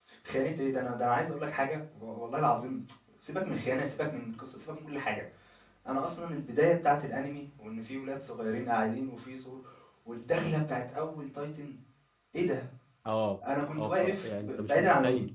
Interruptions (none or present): present